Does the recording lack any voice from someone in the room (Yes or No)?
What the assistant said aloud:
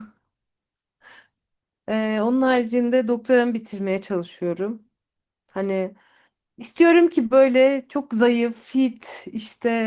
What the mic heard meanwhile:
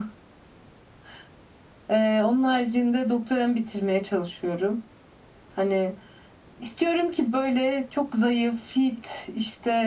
Yes